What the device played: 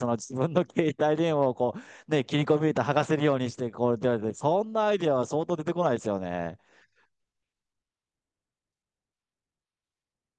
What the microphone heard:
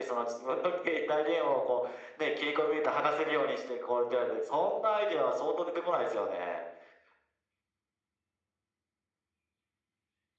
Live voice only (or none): none